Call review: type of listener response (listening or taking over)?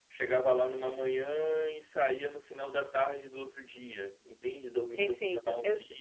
taking over